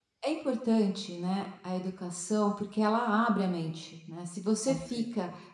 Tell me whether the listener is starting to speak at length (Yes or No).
No